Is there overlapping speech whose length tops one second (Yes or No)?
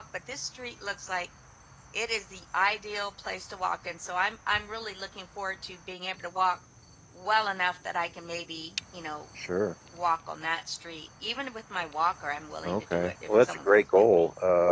Yes